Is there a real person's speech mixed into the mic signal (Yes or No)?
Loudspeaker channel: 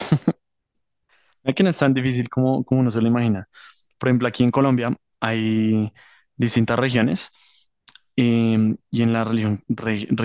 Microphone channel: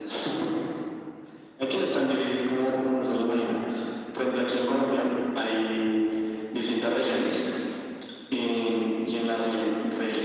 No